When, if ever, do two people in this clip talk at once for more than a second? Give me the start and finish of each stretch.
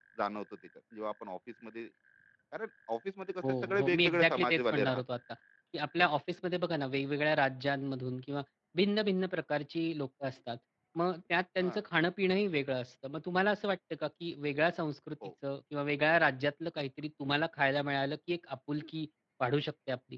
3.4-5.0

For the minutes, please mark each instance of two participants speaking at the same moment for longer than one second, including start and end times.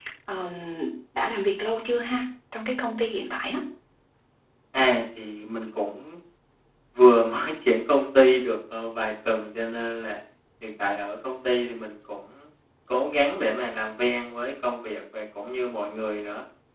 none

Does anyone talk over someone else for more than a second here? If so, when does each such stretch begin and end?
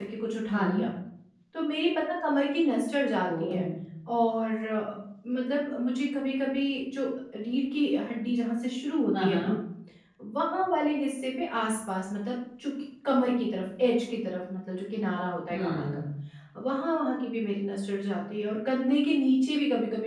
none

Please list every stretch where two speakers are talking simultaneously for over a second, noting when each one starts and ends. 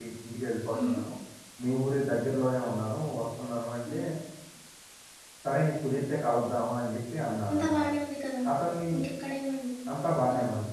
none

